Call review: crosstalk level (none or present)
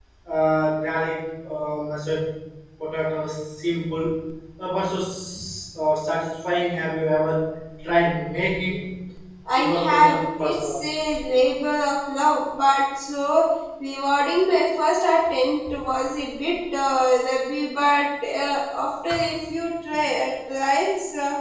present